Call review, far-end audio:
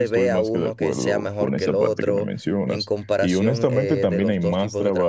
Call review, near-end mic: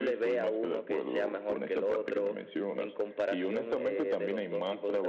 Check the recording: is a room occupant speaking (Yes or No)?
No